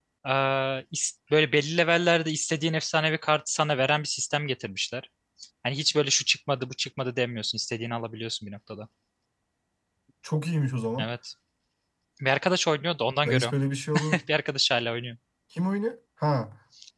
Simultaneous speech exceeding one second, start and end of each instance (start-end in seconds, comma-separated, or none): none